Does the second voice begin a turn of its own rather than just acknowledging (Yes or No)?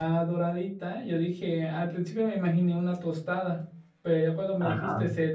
No